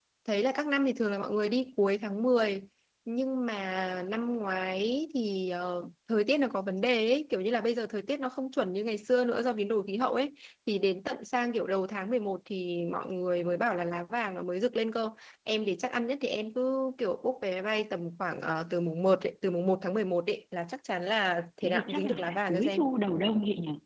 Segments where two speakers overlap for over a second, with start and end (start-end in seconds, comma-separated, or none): 21.6-22.9